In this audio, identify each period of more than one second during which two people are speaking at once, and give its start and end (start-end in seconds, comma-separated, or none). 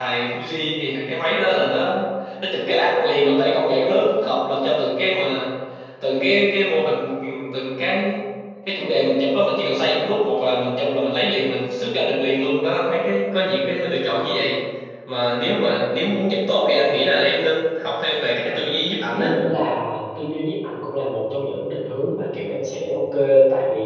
none